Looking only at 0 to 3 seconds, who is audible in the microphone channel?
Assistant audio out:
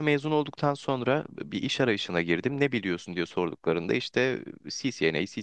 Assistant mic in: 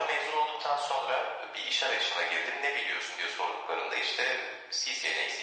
echo only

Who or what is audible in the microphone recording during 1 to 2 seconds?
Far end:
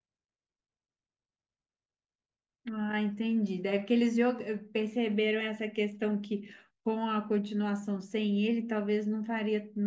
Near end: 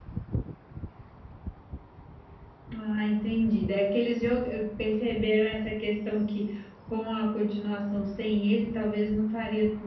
neither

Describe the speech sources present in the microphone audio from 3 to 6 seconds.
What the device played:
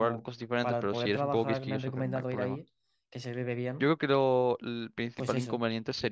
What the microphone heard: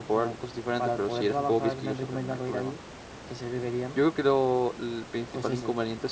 echo only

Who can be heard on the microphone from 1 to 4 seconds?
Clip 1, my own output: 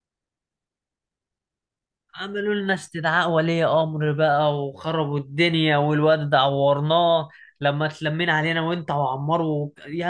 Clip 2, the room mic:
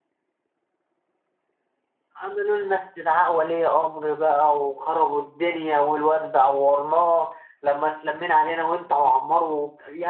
echo only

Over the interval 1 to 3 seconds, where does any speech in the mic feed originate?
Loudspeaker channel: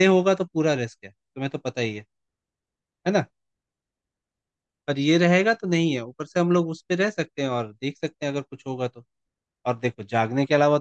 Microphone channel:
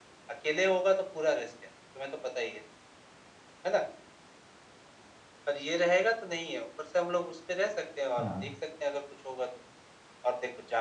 echo only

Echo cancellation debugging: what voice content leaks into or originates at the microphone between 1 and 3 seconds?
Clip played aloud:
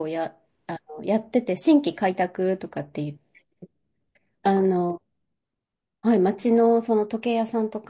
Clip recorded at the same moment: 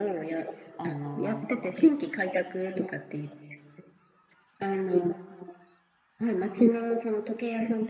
both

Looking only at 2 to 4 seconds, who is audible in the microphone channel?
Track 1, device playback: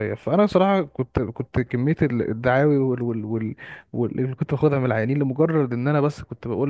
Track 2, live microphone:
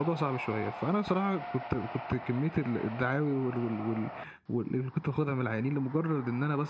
echo only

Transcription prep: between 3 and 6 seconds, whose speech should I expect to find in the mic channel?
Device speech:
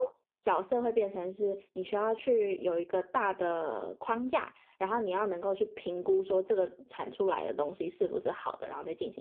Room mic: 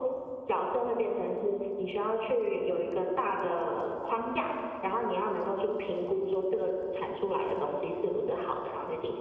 echo only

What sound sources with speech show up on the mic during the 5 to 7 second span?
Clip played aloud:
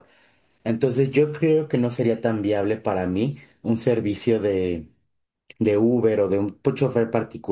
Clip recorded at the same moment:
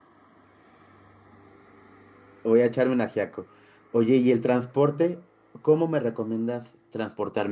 user only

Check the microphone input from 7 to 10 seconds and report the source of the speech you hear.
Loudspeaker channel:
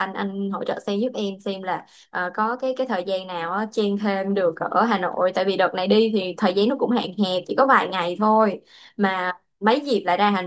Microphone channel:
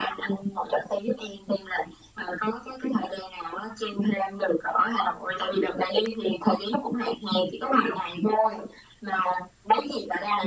echo only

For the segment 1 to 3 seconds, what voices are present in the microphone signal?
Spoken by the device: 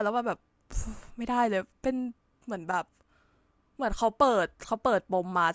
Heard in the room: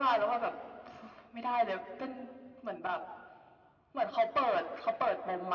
echo only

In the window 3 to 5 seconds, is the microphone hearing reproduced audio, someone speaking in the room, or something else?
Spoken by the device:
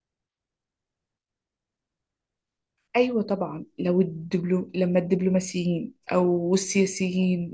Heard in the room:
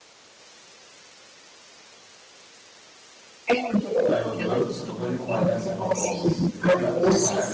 both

